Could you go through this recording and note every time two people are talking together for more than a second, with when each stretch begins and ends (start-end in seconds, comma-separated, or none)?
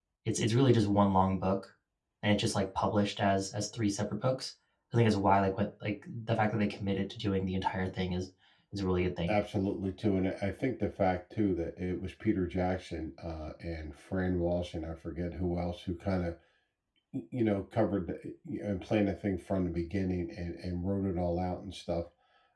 none